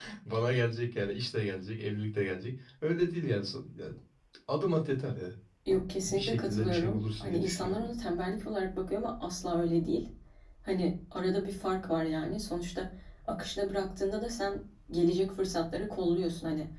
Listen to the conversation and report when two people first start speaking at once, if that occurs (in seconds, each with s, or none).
6.0 s